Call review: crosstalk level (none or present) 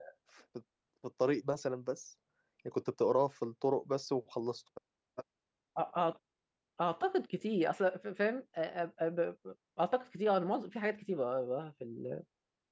none